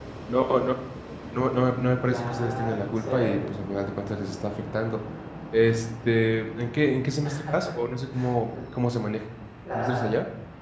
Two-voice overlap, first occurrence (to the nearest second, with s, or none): 2 s